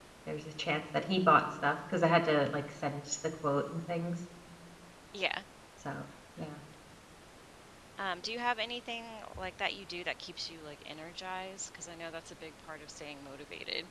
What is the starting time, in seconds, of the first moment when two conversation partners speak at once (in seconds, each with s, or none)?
none